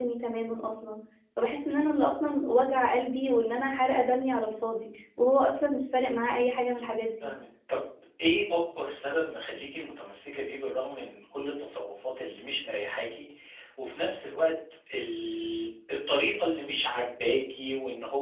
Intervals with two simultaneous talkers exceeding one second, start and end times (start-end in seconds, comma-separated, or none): none